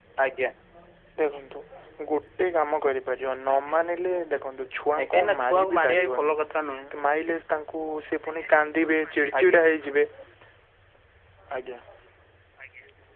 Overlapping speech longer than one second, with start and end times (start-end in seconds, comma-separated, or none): 5.0-6.4